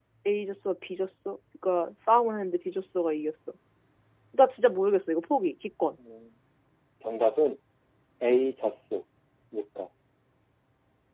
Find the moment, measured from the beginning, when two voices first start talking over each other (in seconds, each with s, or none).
none